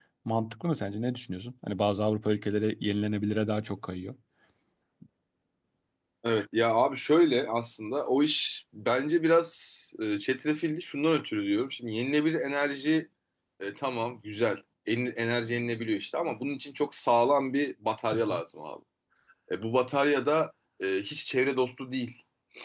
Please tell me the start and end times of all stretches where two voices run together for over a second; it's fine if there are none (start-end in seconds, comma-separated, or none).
none